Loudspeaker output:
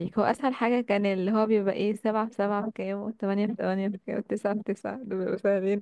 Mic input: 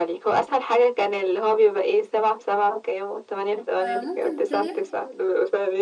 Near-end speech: present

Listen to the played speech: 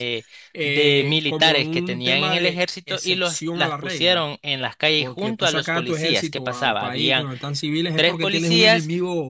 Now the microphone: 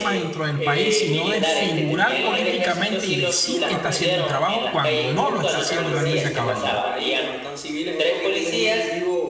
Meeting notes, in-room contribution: present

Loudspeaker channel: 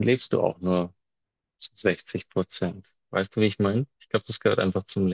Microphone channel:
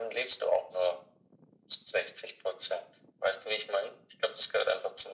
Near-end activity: none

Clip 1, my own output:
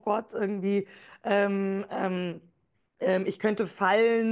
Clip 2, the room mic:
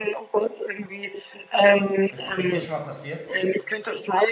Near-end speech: present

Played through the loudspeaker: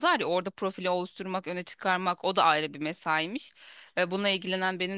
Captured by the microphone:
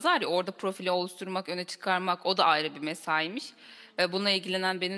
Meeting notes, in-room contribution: none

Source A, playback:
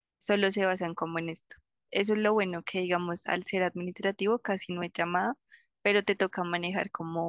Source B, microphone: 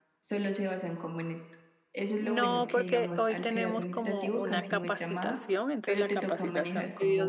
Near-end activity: present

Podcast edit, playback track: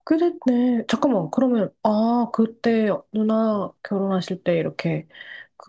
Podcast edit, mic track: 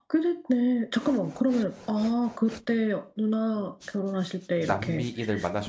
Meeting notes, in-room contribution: present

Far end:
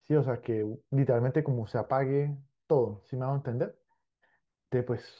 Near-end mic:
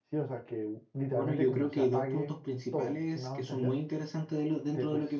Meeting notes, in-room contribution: present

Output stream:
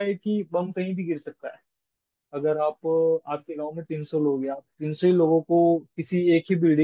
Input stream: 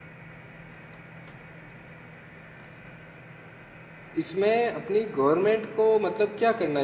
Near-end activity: present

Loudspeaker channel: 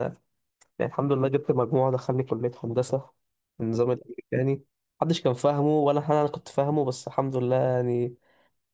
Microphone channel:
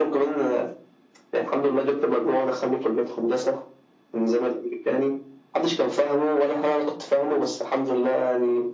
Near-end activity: none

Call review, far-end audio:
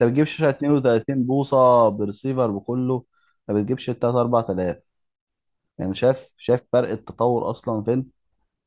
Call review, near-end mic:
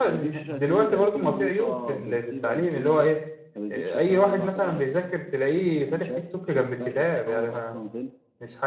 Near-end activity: present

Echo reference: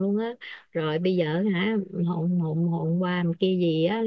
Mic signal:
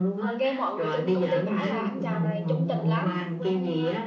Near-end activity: present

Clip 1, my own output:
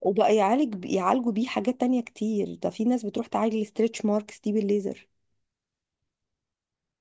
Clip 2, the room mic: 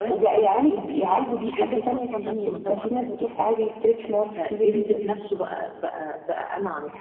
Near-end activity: present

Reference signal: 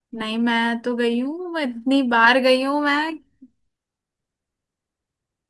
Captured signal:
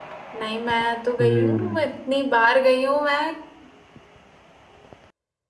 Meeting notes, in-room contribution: present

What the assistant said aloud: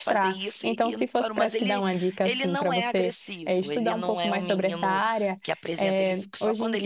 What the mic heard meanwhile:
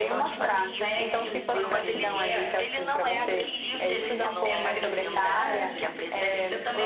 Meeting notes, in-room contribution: present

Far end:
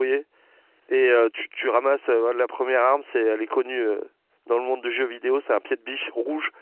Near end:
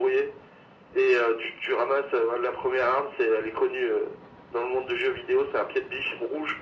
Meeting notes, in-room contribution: none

